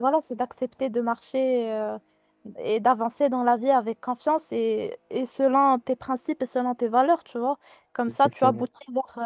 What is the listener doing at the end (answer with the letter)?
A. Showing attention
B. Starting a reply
A